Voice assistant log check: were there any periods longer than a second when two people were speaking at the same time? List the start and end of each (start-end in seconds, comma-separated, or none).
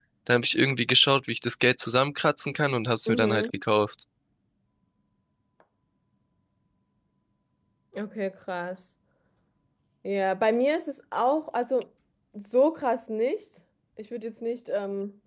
none